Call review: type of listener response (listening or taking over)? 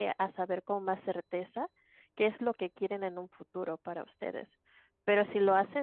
listening